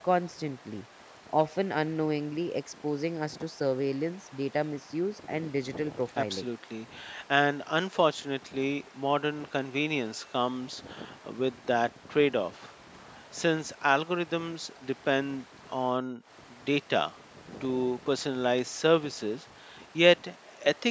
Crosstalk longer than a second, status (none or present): none